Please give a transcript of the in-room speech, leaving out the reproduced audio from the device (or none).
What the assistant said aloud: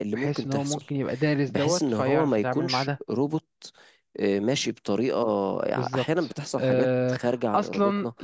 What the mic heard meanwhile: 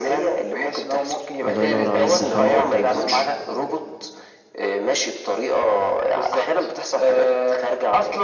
الله ينور عليك ده حل ممتاز